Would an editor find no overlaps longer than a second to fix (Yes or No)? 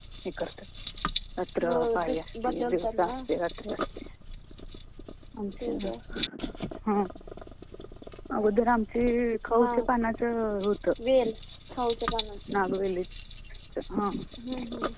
No